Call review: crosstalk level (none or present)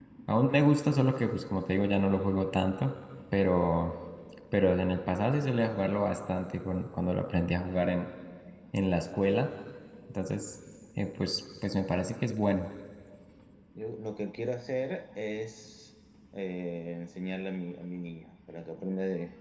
none